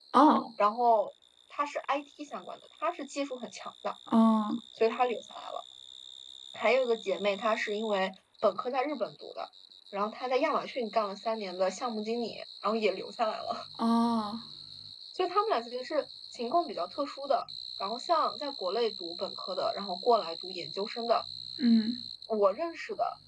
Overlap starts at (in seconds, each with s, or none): none